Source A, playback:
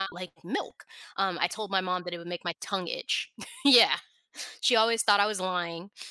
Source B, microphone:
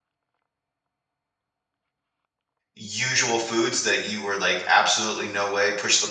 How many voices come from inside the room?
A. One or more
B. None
A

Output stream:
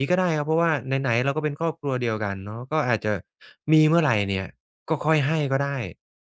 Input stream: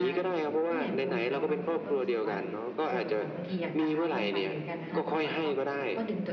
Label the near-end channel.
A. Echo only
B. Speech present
B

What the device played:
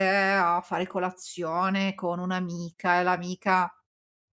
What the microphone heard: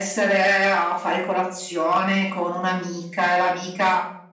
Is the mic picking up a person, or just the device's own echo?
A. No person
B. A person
A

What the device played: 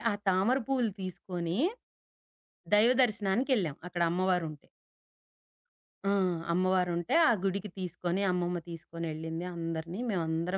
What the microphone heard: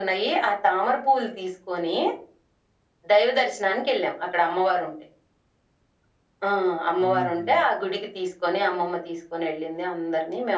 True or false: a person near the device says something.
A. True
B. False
A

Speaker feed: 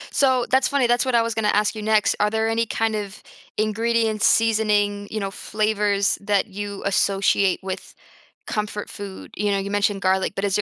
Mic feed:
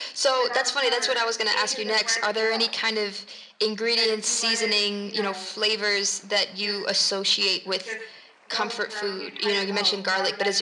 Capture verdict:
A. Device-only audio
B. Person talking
B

